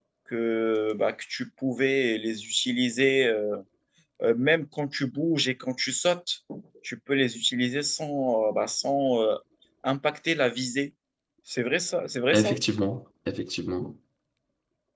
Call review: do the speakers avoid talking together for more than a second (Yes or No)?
Yes